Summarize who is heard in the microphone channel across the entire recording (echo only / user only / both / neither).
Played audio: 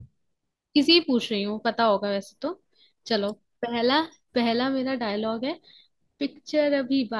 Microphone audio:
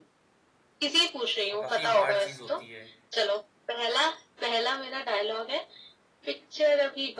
both